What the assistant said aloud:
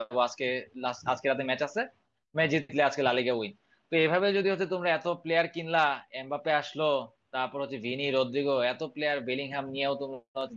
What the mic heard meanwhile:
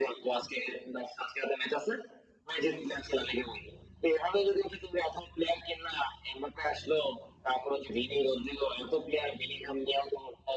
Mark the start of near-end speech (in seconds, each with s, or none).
none